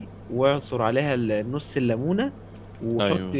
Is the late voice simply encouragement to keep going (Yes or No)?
Yes